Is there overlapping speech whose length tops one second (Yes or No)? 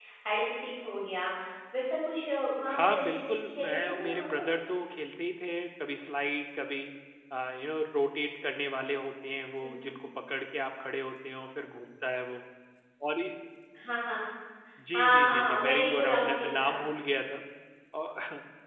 Yes